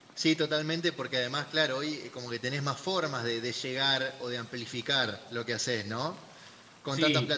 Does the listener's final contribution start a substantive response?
No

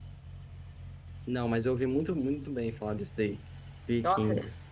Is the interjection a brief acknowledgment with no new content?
No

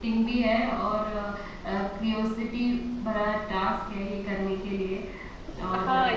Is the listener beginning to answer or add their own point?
Yes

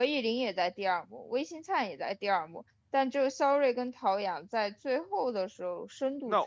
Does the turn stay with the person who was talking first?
No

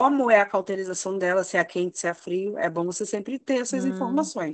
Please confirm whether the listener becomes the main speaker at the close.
Yes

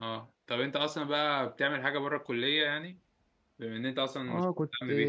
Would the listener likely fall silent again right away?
No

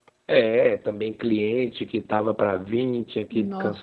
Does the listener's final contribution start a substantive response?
No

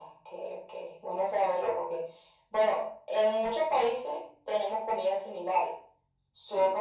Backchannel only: Yes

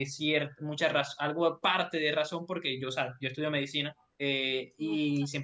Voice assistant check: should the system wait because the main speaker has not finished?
Yes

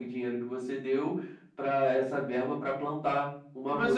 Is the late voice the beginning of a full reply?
Yes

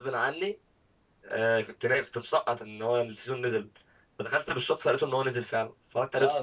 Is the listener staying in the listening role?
No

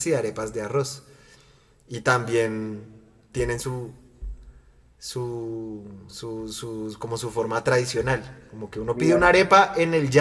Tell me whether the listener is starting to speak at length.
No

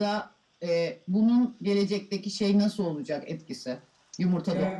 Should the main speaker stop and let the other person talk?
Yes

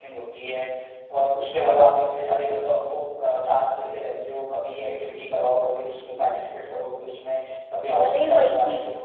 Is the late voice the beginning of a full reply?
Yes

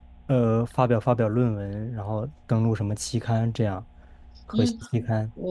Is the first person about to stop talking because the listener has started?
Yes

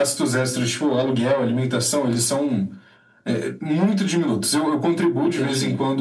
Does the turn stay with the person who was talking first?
Yes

